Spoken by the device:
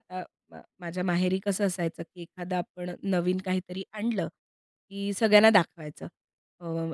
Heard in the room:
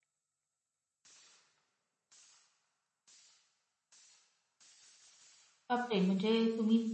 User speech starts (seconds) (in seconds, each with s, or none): 5.7 s